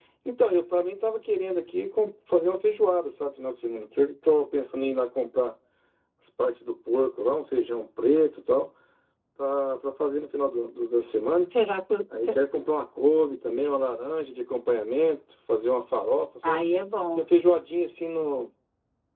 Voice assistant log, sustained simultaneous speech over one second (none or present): none